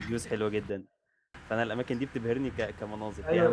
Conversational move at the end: taking over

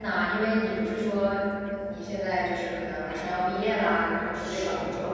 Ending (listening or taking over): taking over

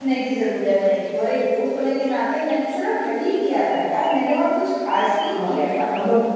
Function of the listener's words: taking over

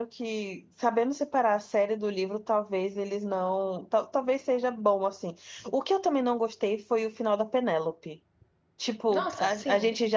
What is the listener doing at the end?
listening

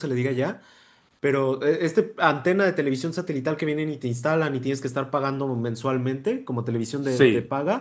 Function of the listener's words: listening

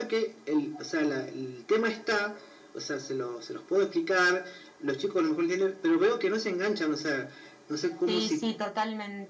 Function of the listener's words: taking over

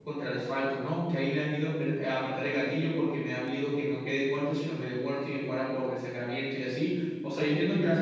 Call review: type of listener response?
listening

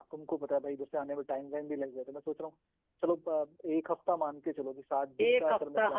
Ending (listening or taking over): taking over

